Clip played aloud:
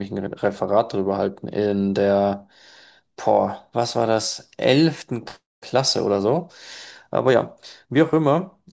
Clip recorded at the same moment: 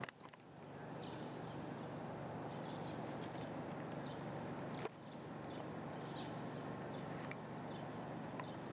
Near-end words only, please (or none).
none